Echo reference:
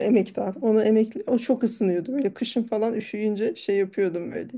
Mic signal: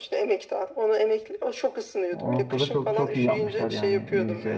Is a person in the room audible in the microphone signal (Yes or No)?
Yes